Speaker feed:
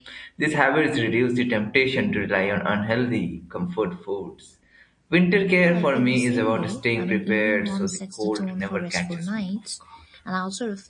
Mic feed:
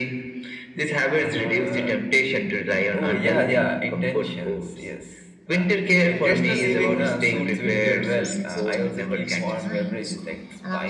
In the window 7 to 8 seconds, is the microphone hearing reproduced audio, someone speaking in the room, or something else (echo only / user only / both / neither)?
both